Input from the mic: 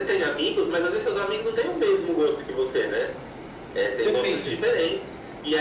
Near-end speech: present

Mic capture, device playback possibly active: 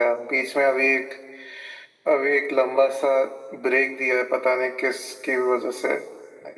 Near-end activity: none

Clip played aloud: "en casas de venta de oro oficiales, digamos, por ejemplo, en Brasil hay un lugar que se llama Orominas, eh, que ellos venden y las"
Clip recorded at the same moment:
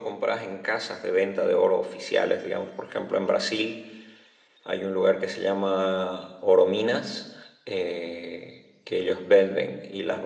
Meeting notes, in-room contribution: none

